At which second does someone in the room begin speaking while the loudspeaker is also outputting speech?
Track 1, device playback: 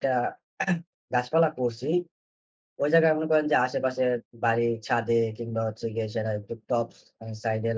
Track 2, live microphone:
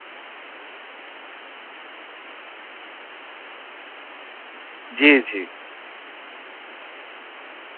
5.0 s

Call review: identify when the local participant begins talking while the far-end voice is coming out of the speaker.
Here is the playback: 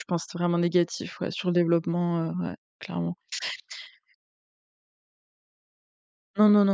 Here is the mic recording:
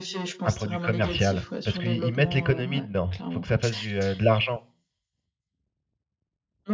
0.4 s

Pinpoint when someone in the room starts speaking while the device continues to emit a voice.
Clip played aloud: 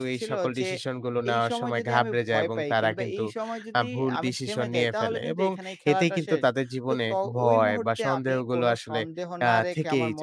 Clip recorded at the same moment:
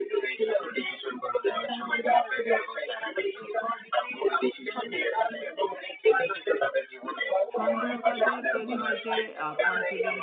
7.6 s

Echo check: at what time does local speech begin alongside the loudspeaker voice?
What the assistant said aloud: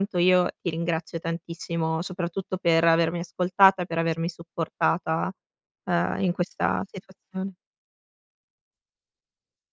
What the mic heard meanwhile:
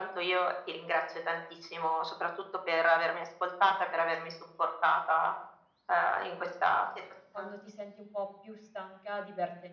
7.3 s

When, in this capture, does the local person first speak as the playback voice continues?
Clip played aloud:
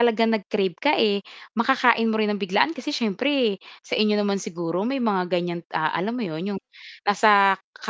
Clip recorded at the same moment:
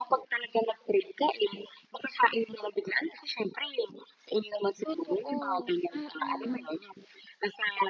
4.8 s

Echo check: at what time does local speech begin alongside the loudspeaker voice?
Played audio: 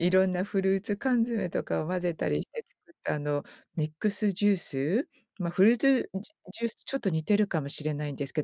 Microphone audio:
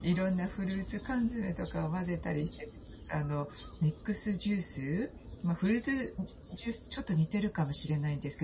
none

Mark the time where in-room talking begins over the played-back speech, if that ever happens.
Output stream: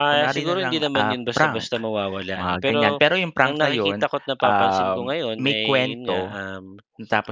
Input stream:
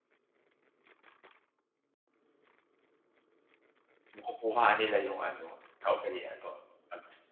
4.1 s

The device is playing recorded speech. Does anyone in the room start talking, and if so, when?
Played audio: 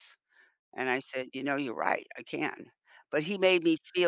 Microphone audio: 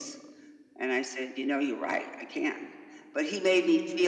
none

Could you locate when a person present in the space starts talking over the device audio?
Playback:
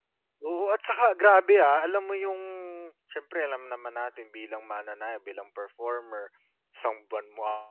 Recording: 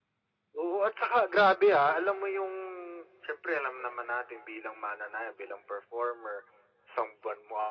none

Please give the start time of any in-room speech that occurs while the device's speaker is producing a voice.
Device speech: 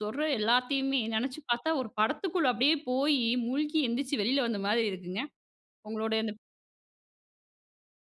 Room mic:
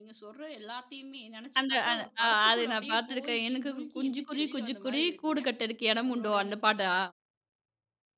1.6 s

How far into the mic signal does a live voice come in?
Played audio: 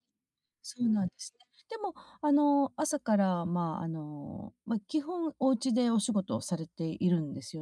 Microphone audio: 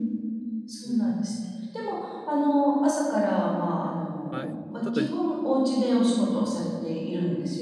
4.3 s

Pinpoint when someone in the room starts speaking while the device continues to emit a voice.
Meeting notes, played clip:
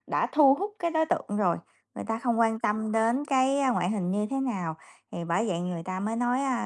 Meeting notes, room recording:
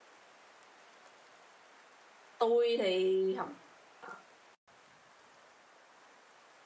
2.4 s

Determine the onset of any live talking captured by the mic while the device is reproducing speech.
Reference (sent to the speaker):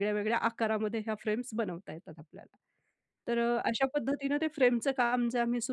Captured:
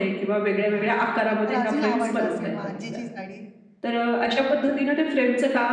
0.4 s

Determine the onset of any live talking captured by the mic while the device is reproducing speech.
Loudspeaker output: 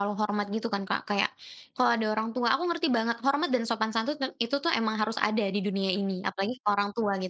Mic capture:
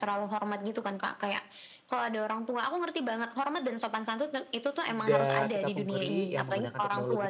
4.8 s

